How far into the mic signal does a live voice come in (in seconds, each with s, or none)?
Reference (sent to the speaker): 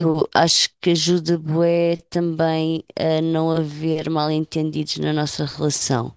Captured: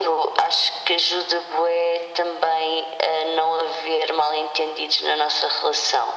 none